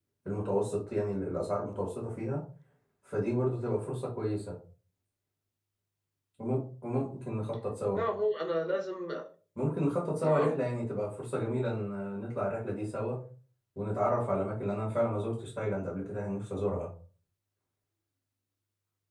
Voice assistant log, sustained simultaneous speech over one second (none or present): none